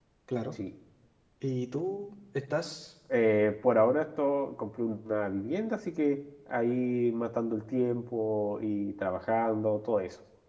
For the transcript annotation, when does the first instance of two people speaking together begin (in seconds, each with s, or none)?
none